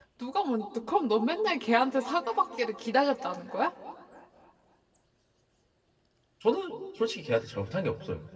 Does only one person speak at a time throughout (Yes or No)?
Yes